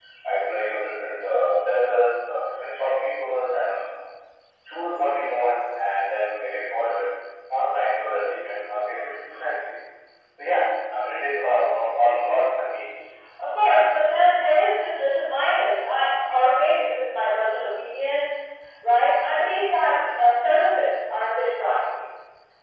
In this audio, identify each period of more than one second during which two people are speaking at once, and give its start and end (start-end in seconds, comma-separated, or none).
none